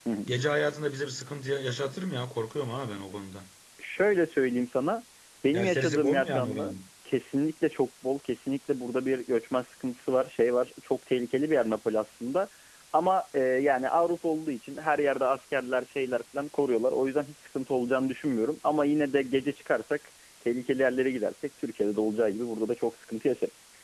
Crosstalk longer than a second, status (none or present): present